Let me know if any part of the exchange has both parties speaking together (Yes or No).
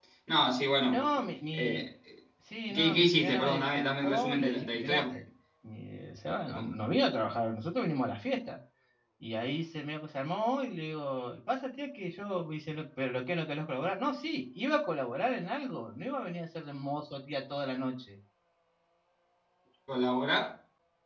Yes